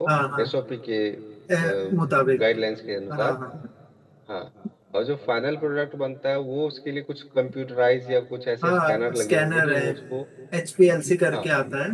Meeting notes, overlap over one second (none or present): present